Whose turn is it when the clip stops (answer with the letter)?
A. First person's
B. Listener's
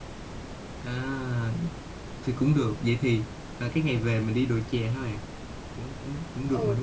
B